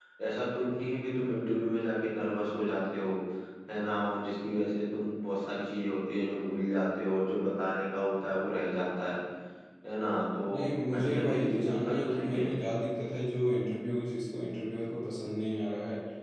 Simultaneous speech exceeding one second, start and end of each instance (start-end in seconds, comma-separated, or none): 10.9-12.4